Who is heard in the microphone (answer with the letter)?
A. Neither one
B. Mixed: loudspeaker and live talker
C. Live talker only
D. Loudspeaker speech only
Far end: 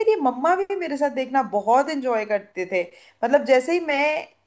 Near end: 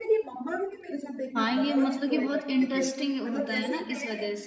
B